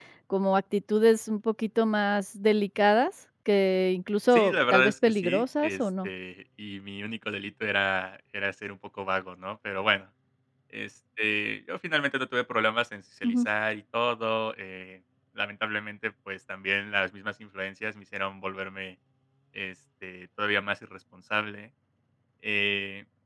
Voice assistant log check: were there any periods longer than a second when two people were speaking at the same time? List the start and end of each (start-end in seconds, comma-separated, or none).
4.3-6.1